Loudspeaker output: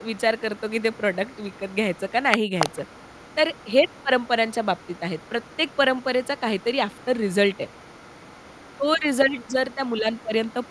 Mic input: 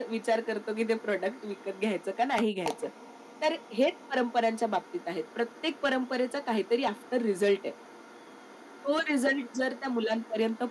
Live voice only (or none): none